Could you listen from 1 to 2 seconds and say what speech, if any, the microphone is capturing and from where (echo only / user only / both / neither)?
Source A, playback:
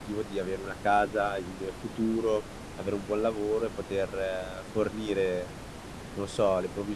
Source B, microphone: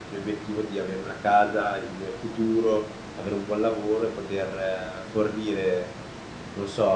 echo only